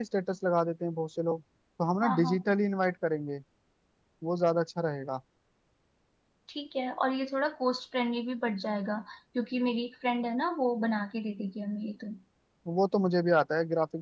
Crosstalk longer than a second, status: none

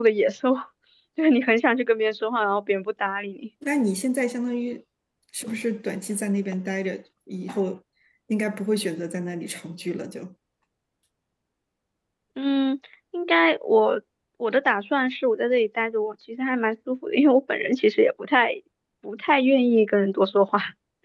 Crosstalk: none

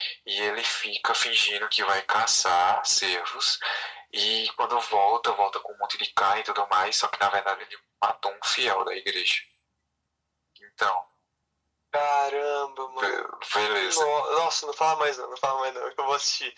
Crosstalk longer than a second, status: none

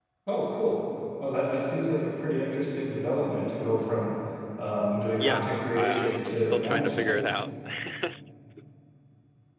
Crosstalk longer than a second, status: present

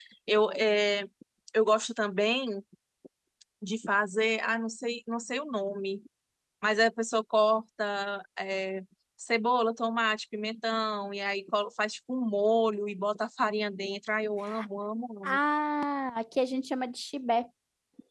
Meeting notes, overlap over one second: none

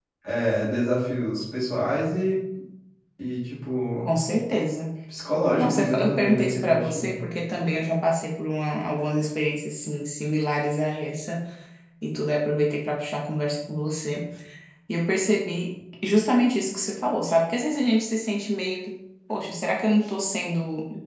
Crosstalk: present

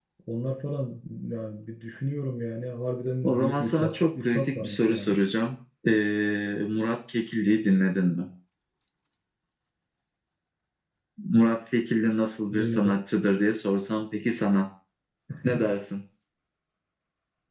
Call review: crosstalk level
present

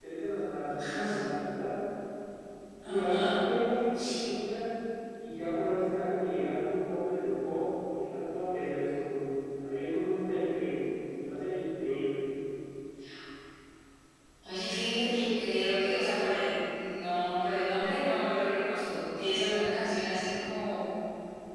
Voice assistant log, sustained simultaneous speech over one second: none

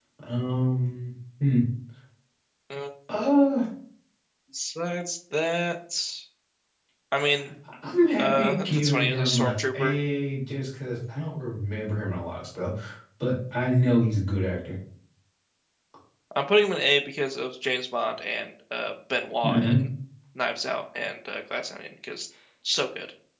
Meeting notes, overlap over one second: present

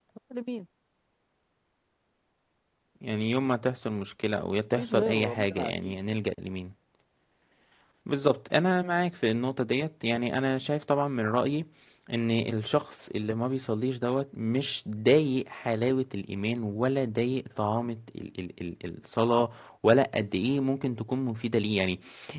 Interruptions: present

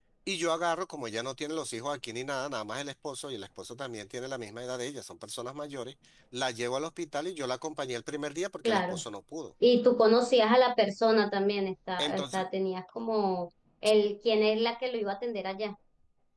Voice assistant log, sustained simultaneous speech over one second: none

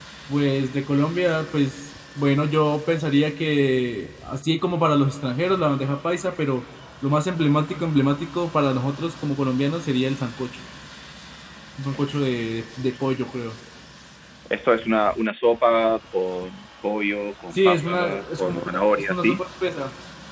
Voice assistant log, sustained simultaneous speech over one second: present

